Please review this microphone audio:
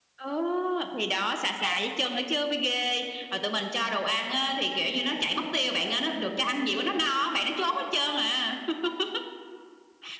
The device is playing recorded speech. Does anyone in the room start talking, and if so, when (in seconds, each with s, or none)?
none